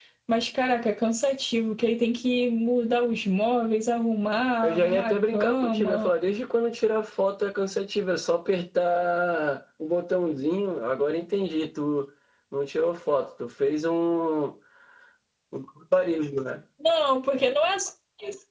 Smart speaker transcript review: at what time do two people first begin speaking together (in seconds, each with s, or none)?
4.6 s